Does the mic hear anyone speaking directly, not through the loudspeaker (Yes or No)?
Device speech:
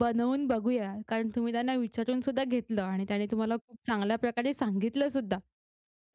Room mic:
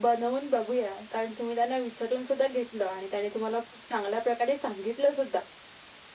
No